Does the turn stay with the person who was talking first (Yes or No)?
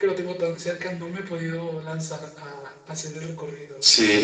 No